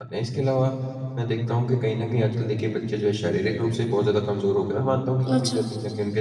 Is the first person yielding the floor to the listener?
No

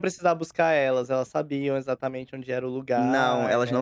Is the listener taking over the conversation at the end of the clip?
Yes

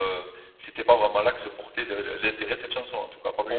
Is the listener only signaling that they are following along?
No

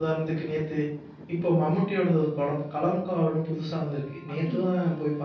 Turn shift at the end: No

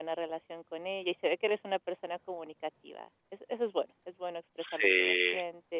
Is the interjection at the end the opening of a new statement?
No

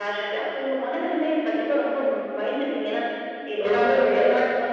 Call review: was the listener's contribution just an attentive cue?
Yes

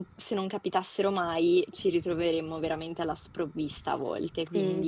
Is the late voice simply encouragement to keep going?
No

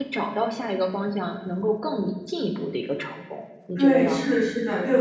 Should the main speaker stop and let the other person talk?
Yes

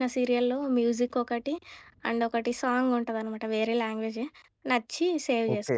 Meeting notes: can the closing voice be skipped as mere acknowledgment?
No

